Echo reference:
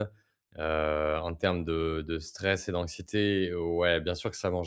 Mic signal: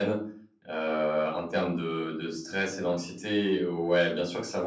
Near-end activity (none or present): none